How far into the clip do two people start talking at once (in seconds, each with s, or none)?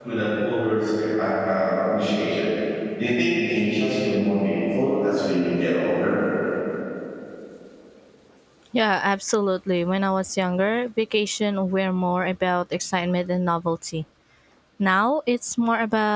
none